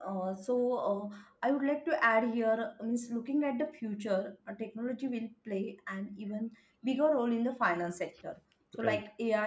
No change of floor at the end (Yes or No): Yes